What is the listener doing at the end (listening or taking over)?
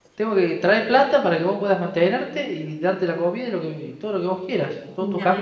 taking over